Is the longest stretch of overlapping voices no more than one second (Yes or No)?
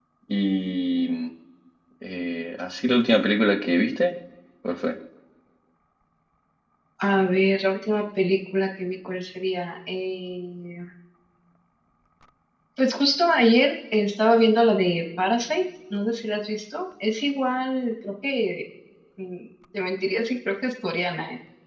Yes